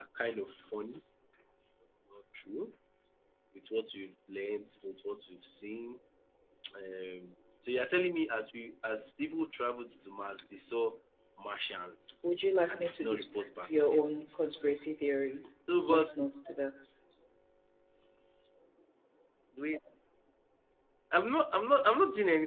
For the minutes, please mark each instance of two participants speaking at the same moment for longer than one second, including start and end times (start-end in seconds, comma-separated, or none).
12.7-14.2